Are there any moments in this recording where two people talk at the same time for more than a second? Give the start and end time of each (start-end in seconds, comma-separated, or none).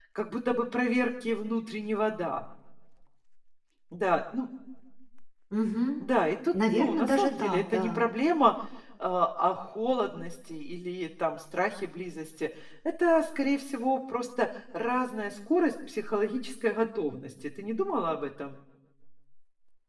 6.7-8.0